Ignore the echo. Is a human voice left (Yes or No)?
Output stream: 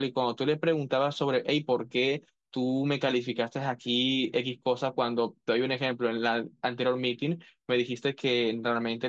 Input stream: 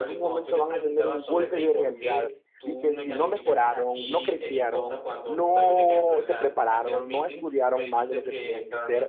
Yes